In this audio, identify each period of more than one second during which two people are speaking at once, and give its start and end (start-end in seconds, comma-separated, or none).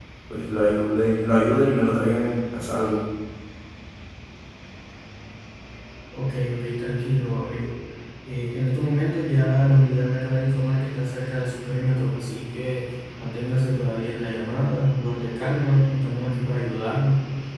none